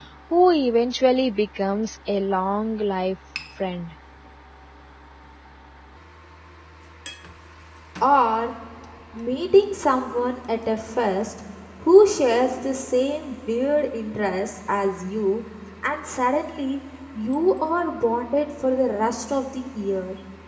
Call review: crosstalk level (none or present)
none